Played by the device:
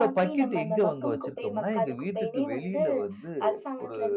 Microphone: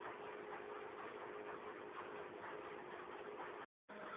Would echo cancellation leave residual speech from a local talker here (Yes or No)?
No